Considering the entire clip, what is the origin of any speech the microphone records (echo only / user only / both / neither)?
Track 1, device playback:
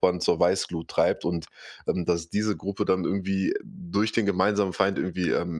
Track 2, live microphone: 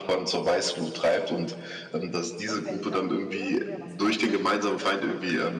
both